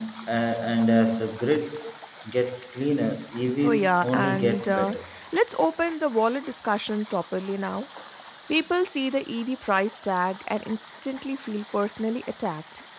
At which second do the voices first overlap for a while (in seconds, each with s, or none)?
3.6 s